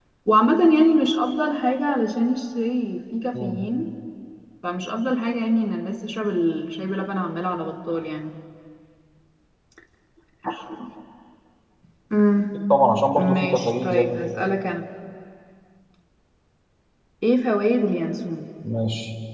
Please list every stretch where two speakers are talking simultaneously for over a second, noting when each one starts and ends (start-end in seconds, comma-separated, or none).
13.2-14.4